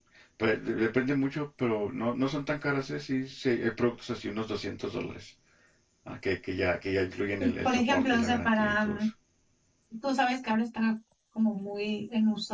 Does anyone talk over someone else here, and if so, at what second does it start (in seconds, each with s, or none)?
7.4 s